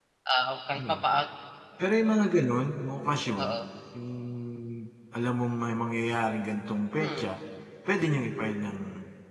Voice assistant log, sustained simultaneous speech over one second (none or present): none